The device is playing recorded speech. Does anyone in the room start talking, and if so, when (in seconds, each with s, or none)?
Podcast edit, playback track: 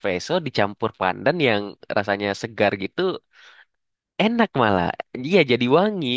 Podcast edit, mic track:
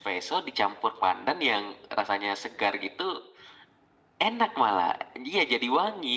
none